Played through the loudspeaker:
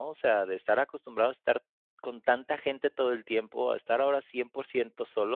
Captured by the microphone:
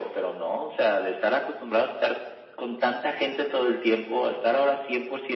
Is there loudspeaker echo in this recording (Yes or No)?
Yes